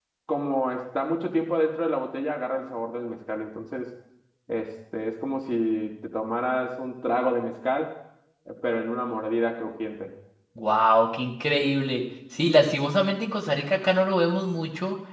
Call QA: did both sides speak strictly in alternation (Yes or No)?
Yes